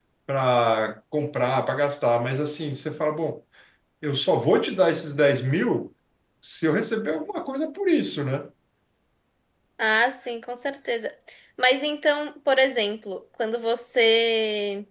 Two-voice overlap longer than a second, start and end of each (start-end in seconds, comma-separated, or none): none